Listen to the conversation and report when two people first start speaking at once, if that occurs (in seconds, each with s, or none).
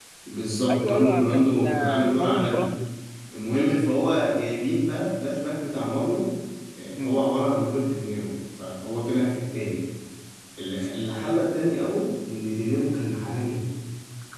0.7 s